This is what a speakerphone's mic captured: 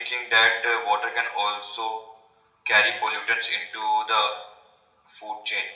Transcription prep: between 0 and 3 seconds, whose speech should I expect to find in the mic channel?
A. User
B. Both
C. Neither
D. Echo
D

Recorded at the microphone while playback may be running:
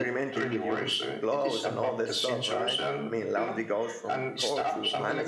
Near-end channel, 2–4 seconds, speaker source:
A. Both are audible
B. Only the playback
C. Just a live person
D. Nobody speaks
A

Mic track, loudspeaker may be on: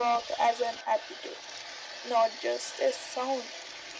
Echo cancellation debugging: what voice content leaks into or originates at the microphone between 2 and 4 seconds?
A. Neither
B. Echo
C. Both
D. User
B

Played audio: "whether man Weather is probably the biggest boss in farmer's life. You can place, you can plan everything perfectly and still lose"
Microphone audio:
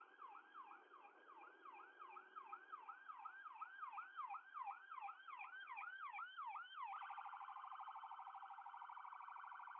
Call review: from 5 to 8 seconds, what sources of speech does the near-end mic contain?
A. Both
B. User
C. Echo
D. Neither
D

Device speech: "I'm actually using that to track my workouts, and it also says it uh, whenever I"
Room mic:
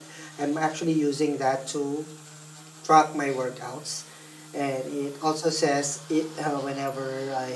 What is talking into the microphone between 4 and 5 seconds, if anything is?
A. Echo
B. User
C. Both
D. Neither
A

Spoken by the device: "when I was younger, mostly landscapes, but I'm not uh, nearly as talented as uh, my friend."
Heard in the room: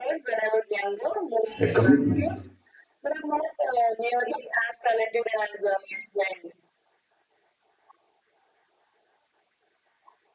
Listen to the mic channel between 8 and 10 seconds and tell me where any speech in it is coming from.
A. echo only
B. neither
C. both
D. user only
B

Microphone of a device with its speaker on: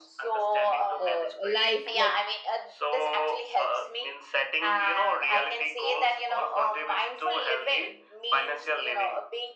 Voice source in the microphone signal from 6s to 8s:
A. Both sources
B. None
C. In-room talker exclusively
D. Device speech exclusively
D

